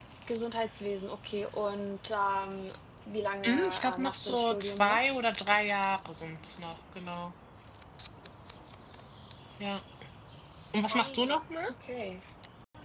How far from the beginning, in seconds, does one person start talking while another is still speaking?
3.5 s

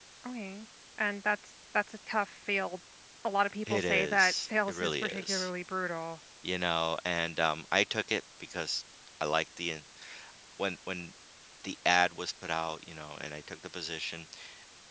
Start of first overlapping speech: 3.7 s

